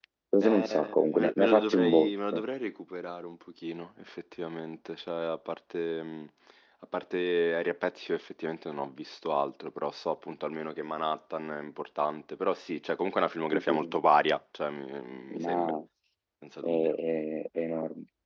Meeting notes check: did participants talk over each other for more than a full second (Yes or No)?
Yes